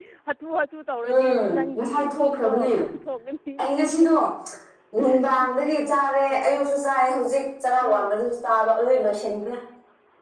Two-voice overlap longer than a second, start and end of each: 1.1-2.5

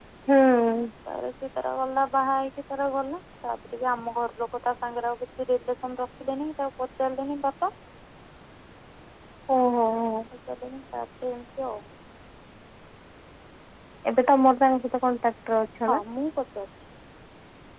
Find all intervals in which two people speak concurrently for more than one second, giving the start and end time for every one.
none

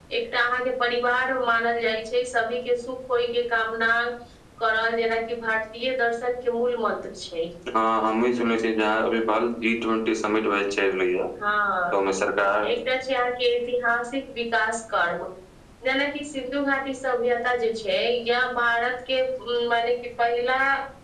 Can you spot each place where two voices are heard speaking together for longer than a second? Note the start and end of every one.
none

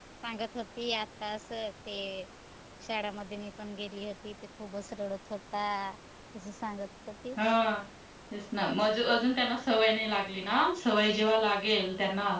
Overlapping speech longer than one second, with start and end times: none

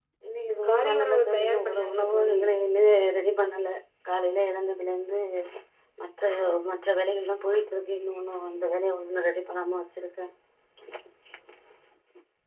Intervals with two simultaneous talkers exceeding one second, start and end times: 0.5-2.4

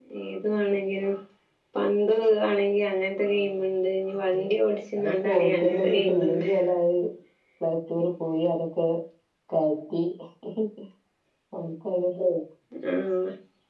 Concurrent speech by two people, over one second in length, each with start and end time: 5.0-6.4

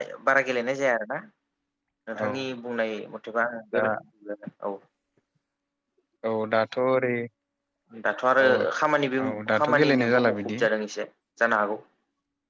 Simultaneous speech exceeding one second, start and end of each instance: 9.2-10.6

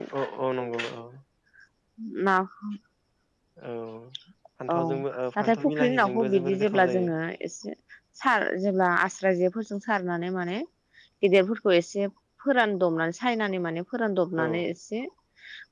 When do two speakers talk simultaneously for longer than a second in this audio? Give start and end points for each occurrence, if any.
5.4-7.1

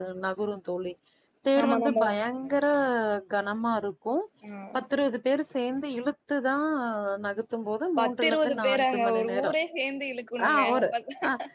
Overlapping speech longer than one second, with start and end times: 8.0-9.6

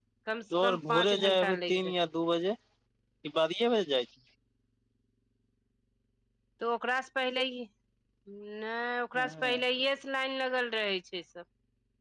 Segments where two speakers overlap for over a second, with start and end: 0.6-1.9

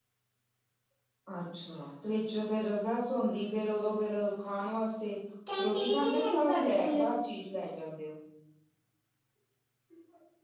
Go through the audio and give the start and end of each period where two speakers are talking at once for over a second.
5.6-7.1

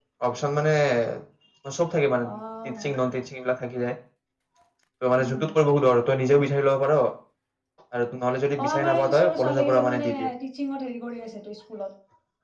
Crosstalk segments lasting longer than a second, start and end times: 8.7-10.3

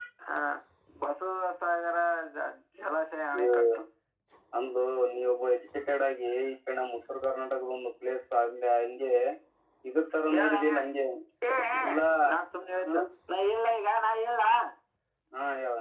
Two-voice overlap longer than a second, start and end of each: none

